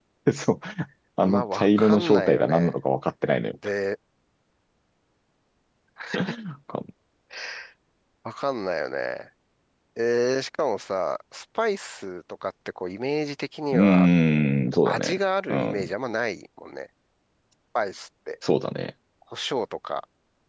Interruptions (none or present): present